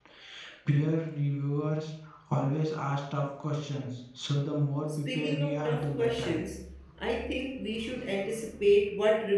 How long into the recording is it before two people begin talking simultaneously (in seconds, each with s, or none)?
5.1 s